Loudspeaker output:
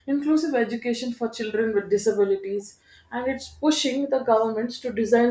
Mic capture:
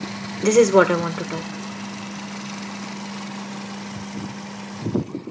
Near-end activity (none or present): present